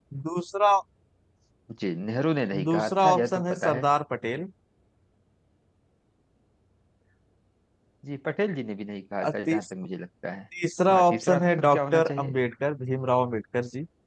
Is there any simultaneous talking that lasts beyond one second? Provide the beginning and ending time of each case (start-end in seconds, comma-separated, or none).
2.6-3.9, 10.9-12.3